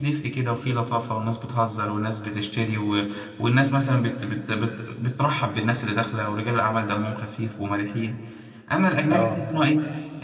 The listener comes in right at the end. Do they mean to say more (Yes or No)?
No